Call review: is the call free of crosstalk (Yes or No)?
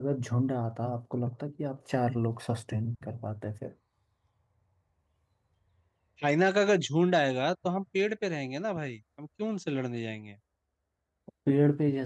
Yes